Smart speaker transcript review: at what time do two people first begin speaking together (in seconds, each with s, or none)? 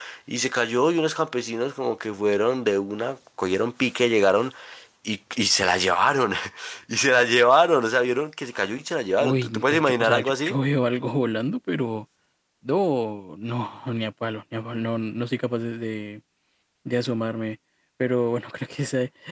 9.2 s